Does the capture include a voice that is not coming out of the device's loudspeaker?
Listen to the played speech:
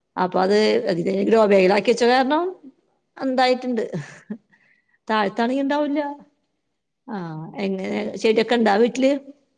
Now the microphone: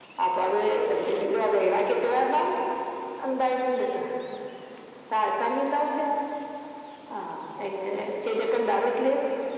No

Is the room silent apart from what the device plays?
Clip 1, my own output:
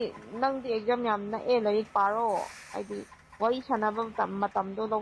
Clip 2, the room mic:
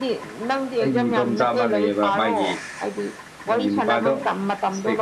No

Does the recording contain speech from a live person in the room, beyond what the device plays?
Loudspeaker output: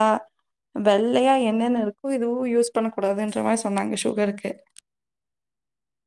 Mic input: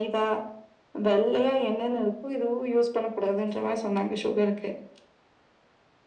No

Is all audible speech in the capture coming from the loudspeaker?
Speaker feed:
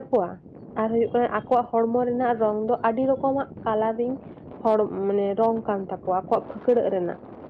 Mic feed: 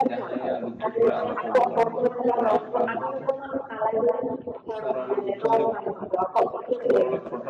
No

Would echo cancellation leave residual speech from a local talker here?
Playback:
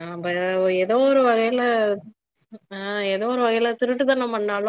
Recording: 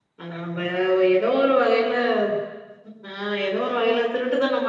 No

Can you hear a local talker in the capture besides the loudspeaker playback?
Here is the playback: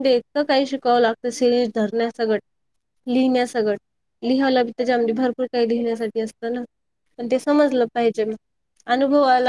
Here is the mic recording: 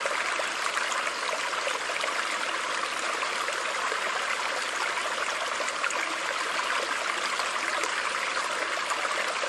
No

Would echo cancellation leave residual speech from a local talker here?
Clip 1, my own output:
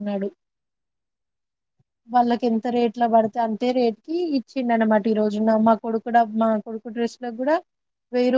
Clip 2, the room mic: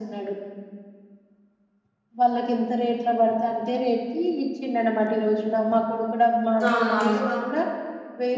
Yes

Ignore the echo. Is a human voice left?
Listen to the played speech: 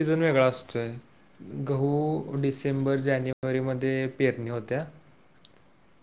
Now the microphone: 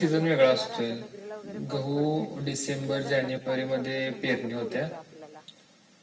Yes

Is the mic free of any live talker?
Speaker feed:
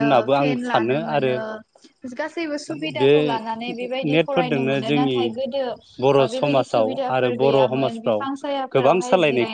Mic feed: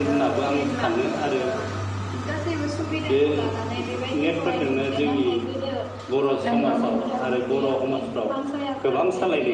No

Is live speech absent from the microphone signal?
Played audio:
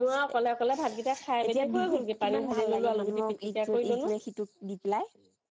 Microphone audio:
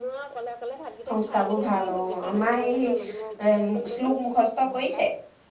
No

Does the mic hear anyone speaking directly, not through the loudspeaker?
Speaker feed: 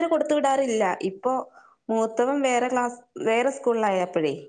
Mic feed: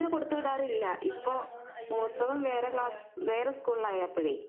Yes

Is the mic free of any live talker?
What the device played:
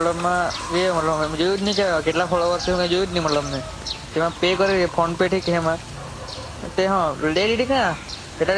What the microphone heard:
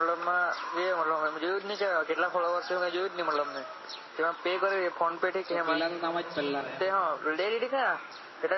No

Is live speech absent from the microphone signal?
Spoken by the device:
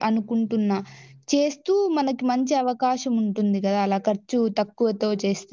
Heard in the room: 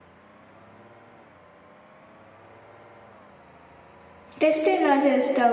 No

